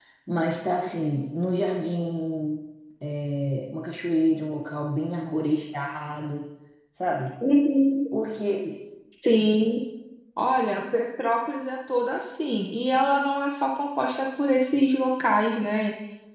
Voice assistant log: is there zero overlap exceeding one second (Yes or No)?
Yes